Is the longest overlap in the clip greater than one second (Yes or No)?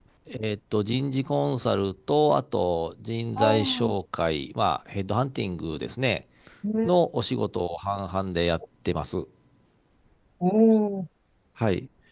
No